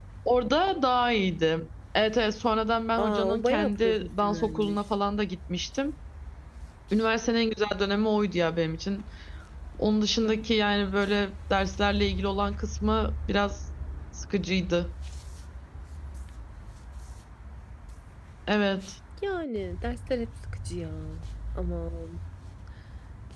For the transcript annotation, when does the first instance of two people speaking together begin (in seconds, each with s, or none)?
3.0 s